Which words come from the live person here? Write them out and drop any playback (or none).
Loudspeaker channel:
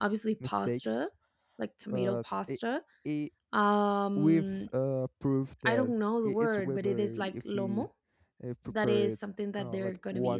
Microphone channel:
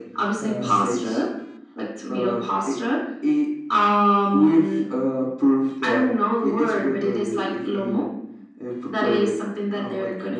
Uh,